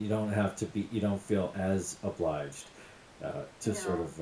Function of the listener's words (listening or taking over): listening